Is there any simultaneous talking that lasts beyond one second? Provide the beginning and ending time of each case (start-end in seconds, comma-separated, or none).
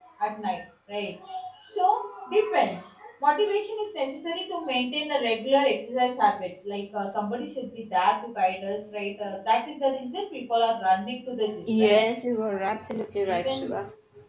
none